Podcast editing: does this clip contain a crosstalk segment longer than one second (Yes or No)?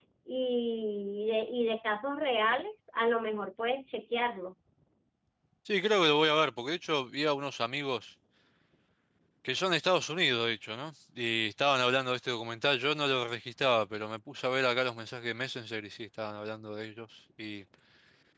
No